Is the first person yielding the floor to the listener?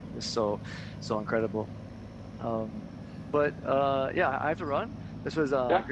No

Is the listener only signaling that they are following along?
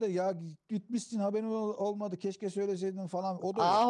No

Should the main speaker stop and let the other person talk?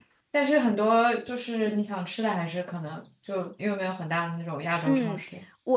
Yes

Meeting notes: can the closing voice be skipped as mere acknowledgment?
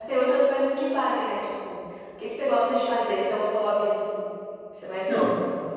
No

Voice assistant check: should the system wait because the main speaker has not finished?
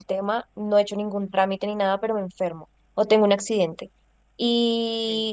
Yes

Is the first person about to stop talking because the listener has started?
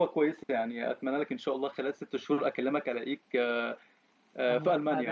Yes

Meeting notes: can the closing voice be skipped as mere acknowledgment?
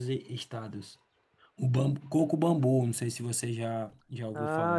No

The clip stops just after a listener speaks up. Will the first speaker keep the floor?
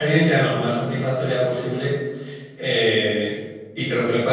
Yes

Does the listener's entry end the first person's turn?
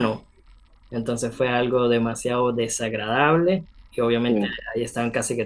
No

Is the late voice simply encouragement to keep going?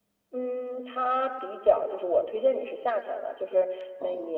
Yes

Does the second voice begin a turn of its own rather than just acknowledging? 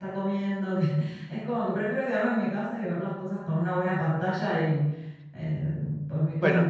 Yes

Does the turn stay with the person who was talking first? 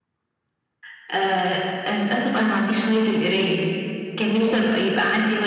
Yes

